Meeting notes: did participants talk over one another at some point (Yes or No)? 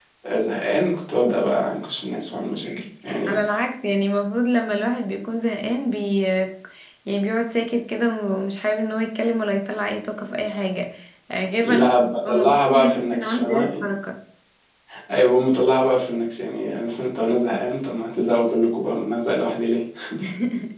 Yes